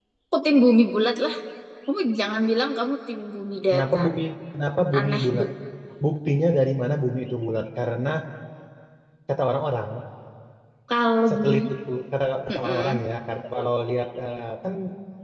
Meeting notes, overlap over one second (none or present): none